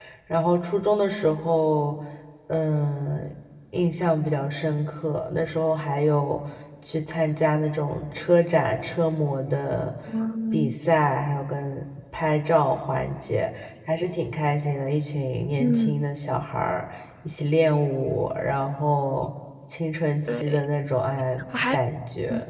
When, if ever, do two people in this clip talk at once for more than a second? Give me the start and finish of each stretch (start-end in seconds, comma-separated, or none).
none